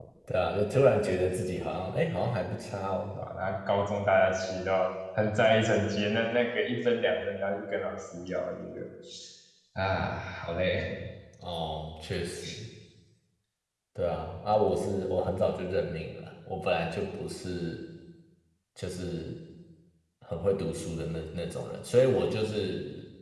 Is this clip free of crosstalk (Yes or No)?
Yes